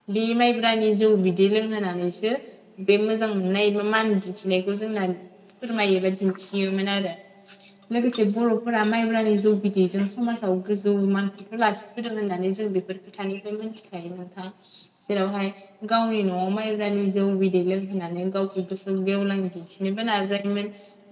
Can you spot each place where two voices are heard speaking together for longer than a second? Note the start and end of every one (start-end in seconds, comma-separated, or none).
none